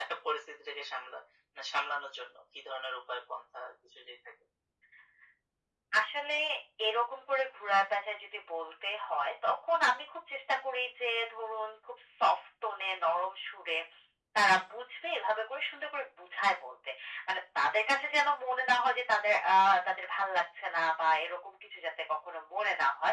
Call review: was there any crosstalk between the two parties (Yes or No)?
No